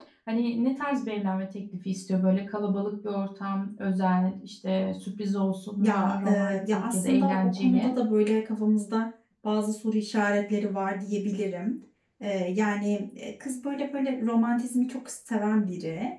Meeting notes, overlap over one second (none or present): present